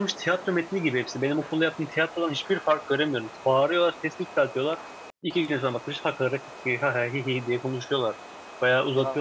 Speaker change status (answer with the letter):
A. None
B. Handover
A